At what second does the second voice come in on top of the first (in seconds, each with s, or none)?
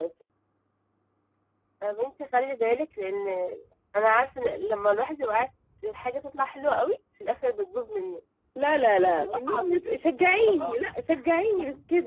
9.2 s